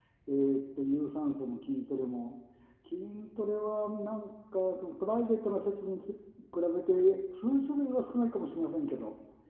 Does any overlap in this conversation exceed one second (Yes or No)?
No